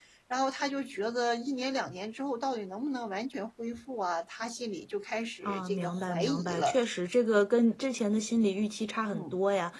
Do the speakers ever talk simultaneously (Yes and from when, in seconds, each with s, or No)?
Yes, from 5.4 s